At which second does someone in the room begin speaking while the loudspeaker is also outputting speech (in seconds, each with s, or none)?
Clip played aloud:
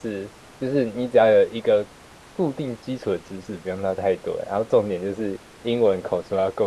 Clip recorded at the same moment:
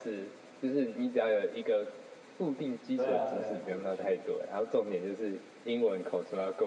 2.9 s